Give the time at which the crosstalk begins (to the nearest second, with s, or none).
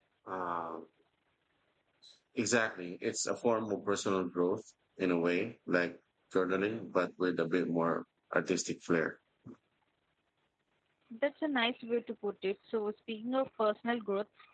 none